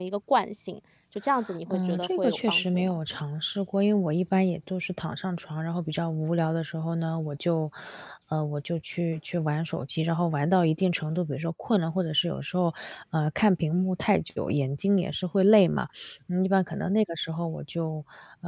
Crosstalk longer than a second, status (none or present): present